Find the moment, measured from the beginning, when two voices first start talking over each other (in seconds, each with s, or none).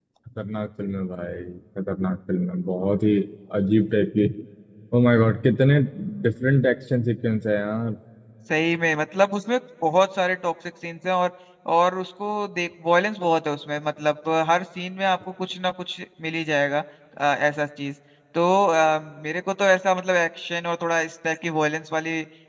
none